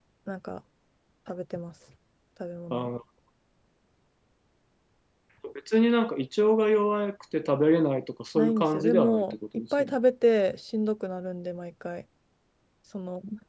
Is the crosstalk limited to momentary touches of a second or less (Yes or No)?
No